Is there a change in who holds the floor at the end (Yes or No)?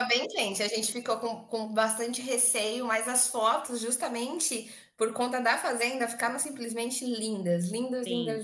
Yes